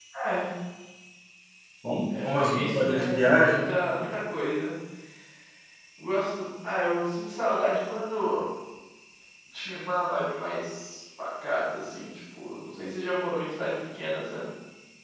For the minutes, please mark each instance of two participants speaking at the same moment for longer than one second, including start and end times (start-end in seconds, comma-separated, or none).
2.2-3.6